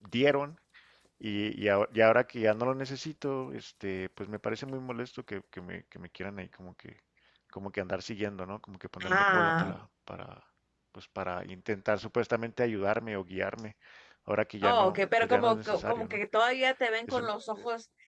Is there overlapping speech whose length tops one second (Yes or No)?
Yes